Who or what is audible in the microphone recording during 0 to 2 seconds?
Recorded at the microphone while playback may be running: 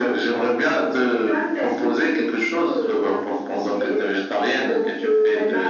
echo only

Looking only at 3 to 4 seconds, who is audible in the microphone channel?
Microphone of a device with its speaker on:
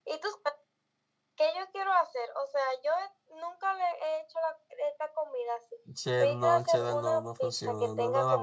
echo only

